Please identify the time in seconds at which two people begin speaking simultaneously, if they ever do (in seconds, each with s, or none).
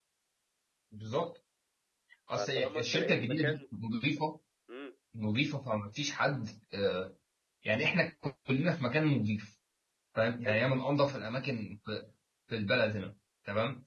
2.4 s